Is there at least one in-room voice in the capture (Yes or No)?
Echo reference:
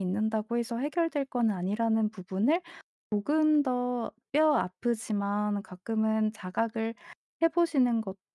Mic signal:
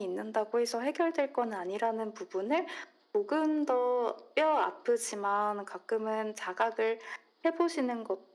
No